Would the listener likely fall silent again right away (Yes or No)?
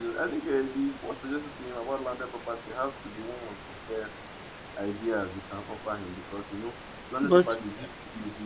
Yes